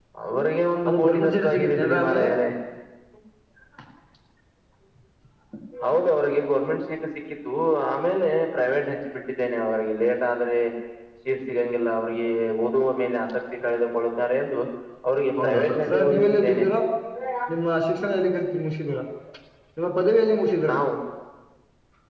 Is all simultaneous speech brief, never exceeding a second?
No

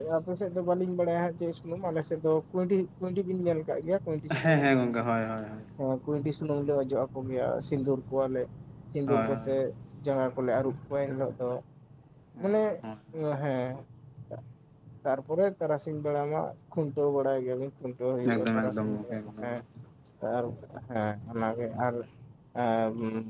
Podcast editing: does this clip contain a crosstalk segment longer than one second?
Yes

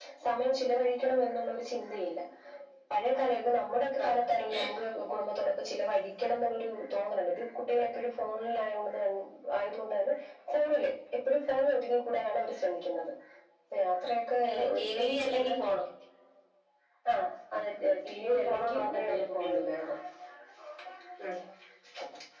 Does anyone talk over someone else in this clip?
Yes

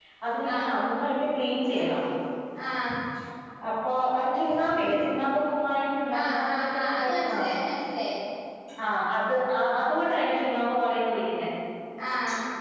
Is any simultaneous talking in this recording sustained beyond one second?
Yes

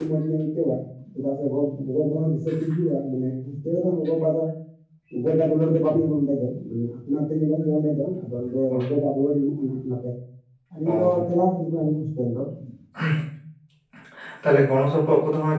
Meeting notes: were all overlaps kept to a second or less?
Yes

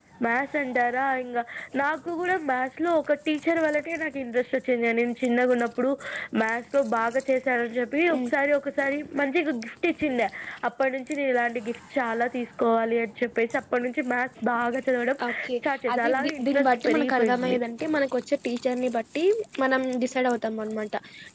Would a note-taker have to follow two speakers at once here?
Yes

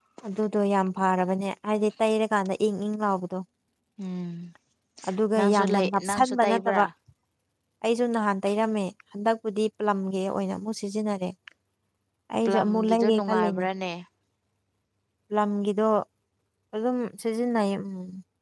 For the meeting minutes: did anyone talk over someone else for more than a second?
Yes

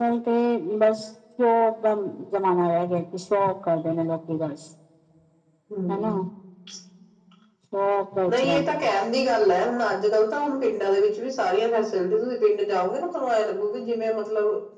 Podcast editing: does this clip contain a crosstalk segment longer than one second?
No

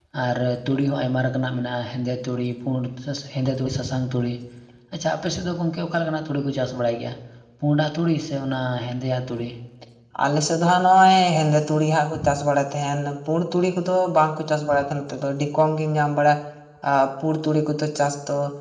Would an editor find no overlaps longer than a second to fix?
Yes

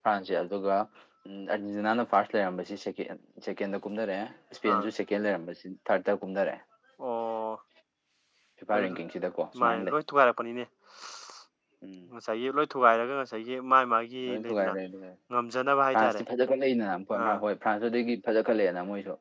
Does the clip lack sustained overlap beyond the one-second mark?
Yes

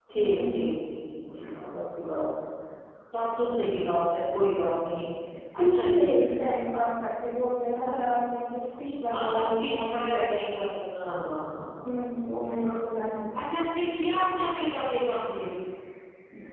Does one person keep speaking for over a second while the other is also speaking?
Yes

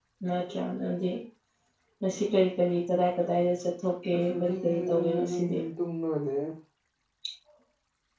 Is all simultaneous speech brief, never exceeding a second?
No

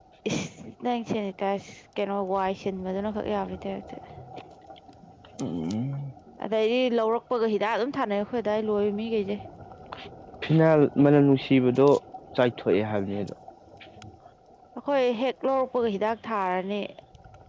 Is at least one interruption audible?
No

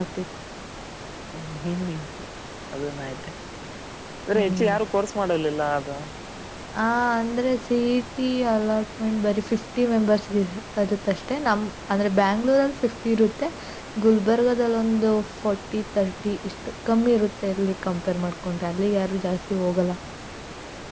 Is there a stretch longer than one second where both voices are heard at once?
No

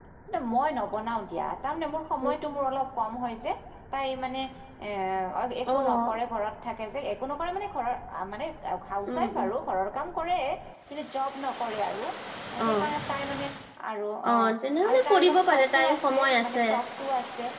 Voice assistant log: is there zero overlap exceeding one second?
No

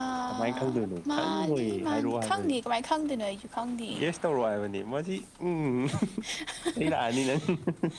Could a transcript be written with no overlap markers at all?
No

